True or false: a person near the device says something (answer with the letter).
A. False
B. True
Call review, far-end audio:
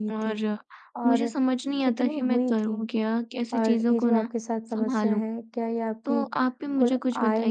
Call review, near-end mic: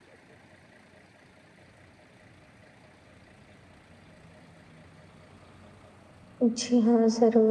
B